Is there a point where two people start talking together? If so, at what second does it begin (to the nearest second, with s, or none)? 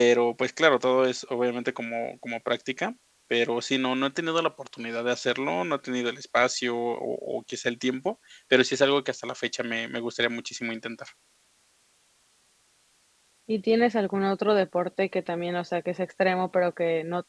none